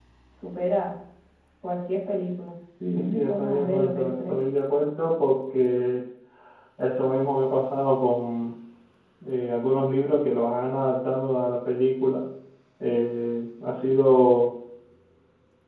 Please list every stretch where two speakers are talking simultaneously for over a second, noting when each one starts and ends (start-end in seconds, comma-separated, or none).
2.9-4.4